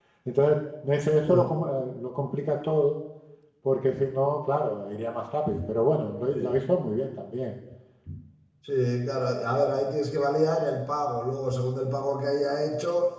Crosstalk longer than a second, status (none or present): none